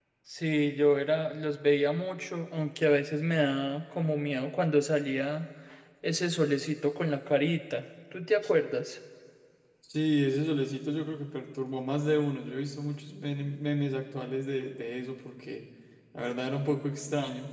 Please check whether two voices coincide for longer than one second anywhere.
No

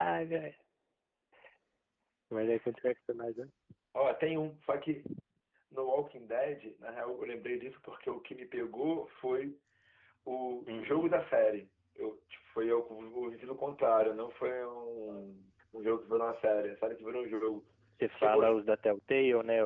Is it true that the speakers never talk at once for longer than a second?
Yes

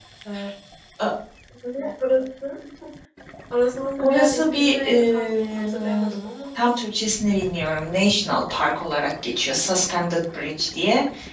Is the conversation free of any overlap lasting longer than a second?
No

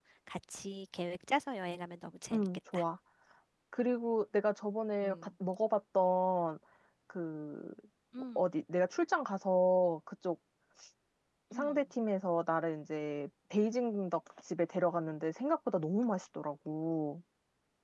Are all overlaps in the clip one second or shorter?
Yes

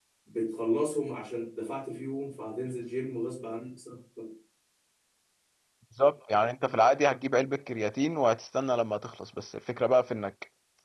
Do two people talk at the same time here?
No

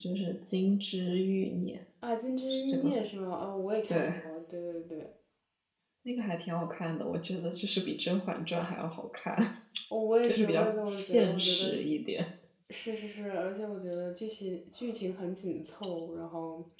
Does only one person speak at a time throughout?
No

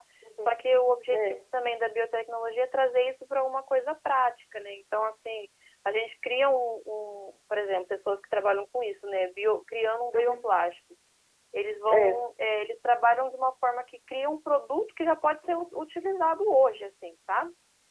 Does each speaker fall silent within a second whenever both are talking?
Yes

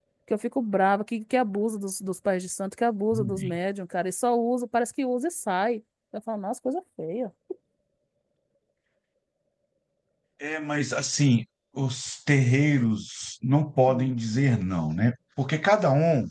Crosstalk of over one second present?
No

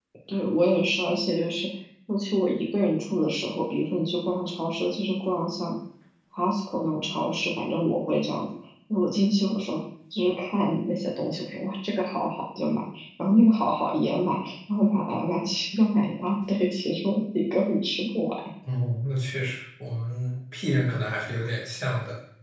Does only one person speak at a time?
Yes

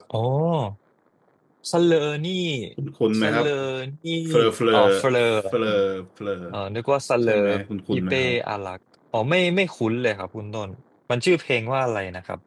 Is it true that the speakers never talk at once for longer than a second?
Yes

